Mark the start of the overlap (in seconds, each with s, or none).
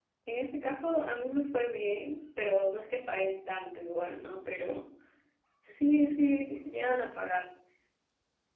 none